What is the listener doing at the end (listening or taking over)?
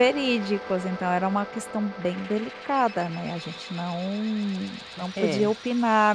listening